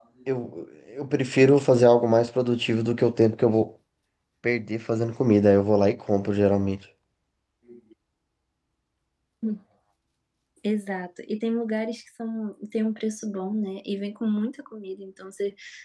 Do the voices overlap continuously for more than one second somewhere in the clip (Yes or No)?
No